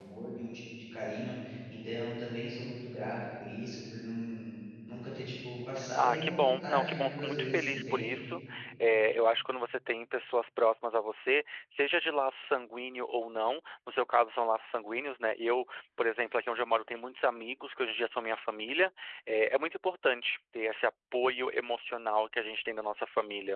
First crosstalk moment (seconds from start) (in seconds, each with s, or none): 5.8 s